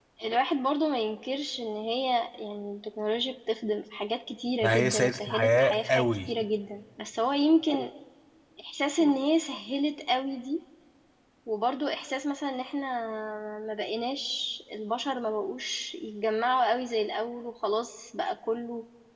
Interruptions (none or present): present